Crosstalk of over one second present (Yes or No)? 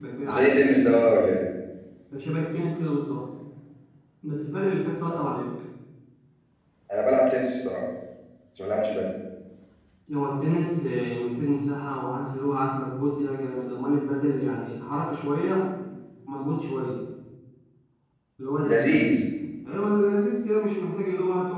No